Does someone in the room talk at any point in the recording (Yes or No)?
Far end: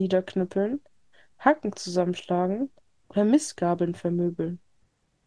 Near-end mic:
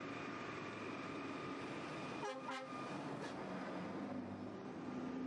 No